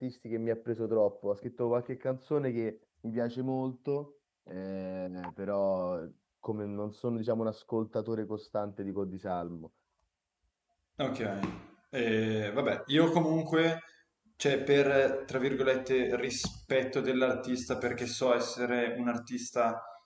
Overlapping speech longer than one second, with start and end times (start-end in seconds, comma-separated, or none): none